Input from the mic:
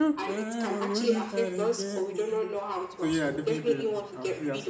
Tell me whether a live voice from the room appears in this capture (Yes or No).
Yes